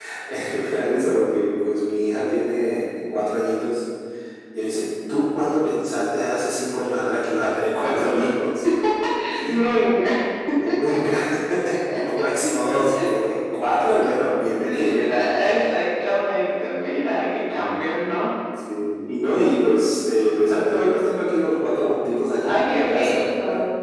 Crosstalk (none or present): present